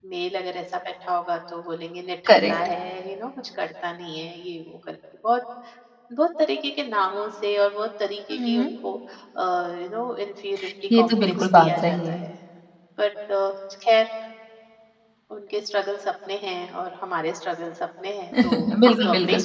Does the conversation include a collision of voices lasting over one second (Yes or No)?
Yes